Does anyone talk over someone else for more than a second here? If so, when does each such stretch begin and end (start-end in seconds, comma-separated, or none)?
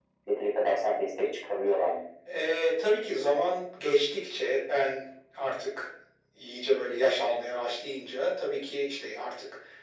none